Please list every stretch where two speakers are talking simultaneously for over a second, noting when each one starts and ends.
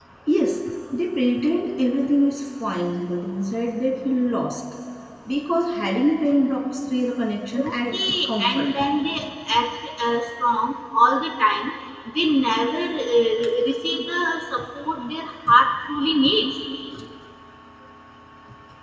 7.6-8.8

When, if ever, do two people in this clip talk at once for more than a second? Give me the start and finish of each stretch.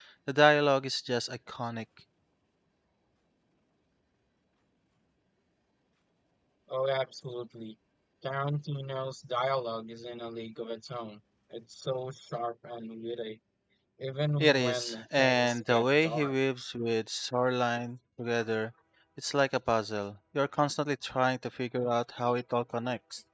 14.4-16.3

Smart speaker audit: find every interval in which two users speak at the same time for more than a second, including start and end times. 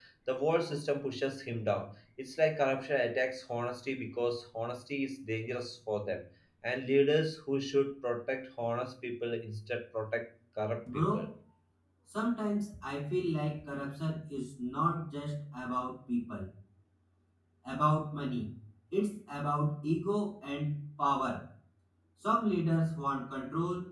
none

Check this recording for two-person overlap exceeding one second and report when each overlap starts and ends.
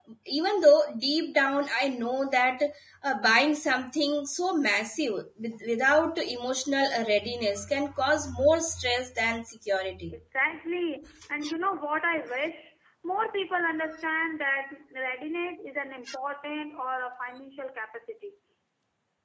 none

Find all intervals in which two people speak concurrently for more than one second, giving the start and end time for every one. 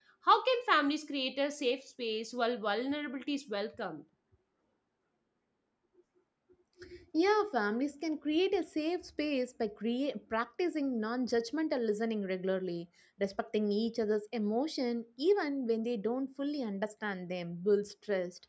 none

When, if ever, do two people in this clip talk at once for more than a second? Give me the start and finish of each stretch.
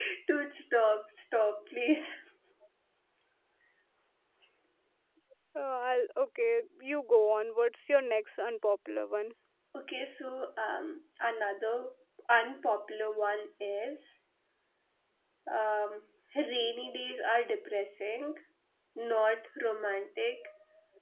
none

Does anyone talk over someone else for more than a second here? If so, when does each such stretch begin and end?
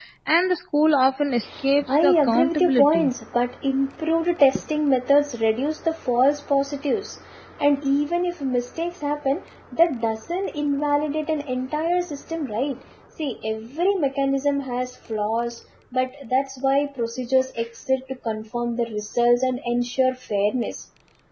1.9-3.1

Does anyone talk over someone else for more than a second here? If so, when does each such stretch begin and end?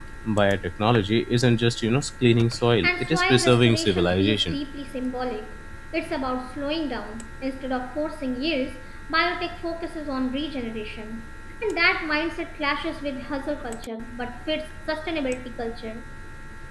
2.8-4.6

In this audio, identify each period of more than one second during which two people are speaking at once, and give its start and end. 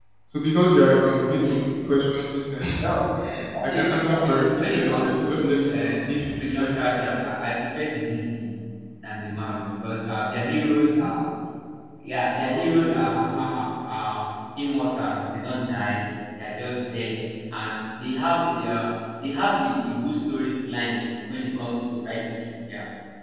3.6-7.3, 12.5-13.8

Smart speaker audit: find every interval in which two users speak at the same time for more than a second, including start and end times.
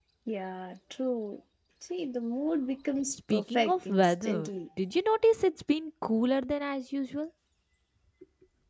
3.1-4.5

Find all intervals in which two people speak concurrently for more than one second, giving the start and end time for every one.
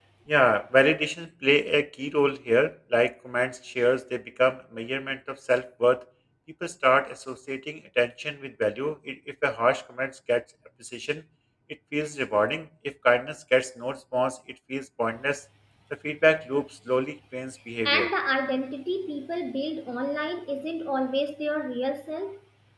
none

